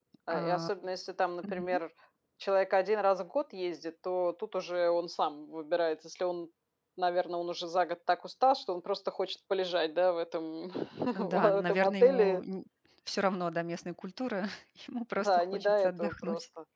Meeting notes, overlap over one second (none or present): present